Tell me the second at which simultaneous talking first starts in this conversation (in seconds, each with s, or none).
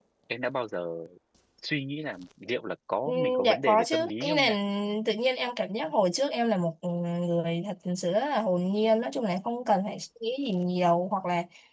3.1 s